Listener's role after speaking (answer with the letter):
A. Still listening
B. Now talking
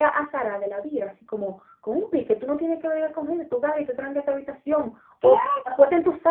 A